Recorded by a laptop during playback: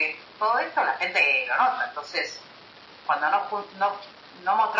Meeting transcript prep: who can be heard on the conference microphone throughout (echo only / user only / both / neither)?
echo only